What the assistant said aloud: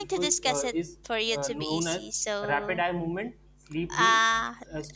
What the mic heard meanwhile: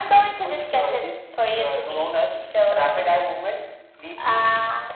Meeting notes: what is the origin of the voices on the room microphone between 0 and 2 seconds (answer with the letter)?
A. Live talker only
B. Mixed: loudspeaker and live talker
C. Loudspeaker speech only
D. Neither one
C